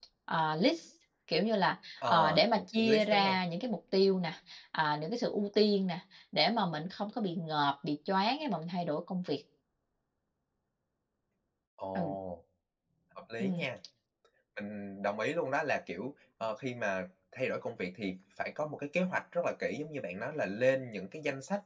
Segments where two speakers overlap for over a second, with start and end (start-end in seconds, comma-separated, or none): 2.1-3.4